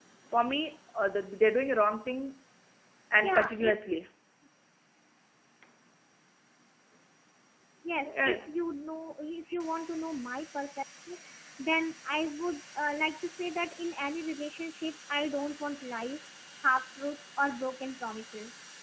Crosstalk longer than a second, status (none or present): none